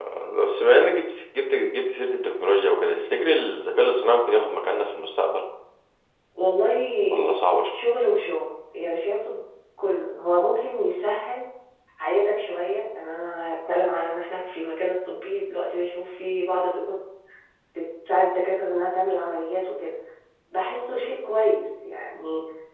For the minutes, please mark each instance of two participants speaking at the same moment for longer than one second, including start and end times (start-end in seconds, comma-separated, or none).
none